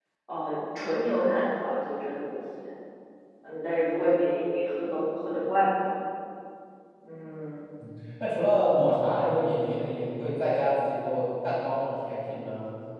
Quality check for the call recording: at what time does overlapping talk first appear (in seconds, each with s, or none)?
none